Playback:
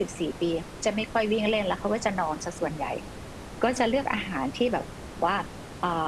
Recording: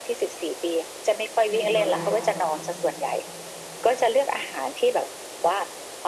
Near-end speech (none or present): present